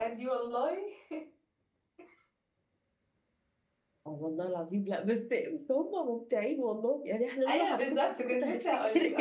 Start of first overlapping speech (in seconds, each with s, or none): 7.5 s